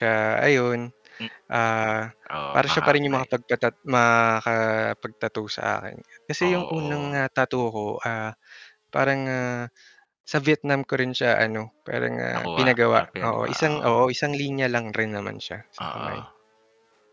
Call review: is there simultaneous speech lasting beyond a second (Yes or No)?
Yes